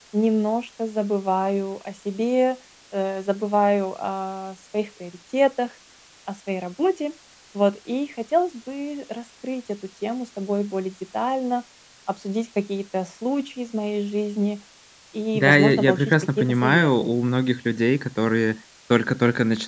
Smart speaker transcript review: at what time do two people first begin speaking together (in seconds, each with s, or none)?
15.3 s